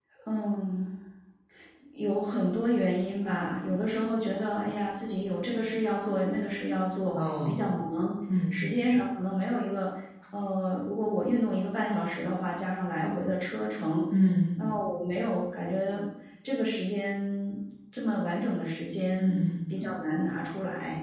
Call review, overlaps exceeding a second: none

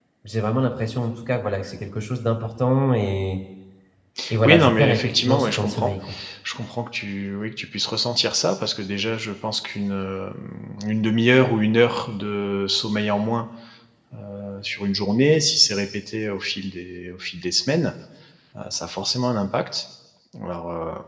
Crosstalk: present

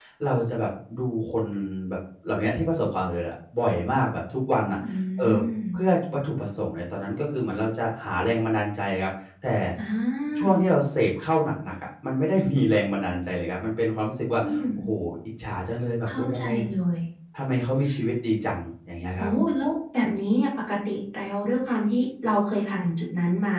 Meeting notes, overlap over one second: none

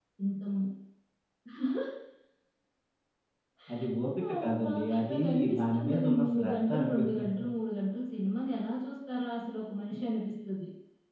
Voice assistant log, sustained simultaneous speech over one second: present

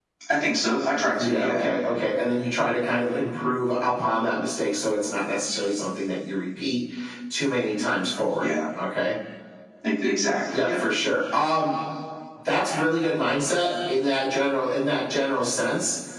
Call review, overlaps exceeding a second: none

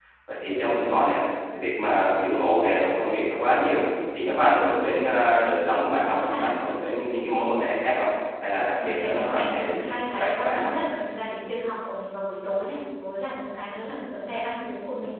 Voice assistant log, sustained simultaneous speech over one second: present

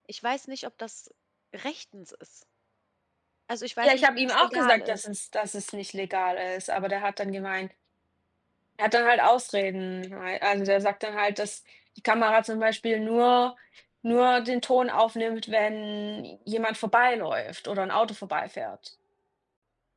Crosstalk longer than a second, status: present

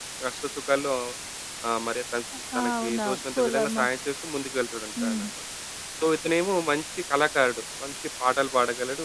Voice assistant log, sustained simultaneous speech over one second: present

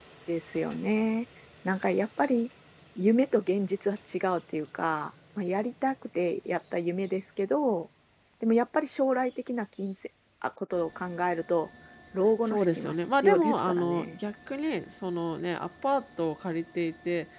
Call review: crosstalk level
present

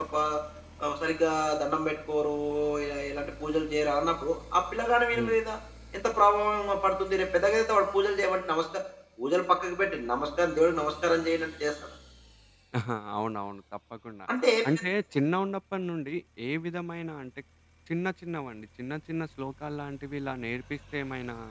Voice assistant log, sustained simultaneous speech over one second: none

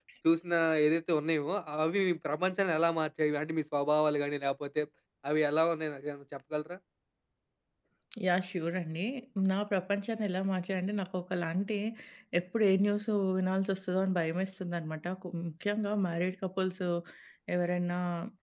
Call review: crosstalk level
none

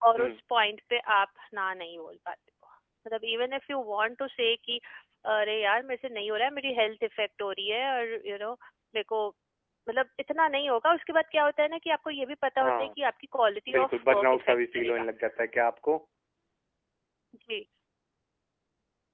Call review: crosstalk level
present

